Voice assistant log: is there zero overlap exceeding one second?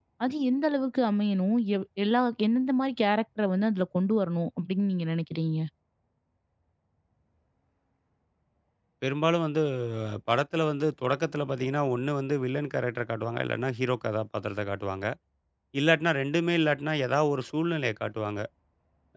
Yes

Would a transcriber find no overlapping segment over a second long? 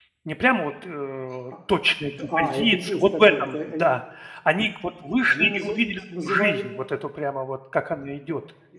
No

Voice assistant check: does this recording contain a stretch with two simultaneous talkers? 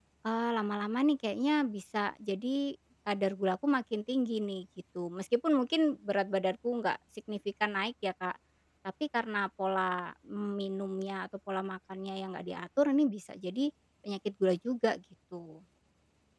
No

